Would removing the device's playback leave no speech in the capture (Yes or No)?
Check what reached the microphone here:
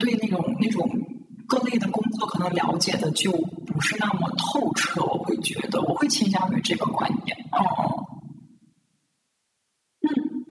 Yes